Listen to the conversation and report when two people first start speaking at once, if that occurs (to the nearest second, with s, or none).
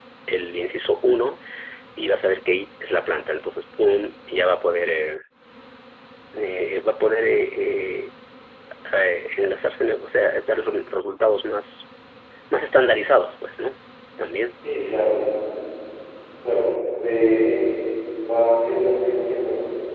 none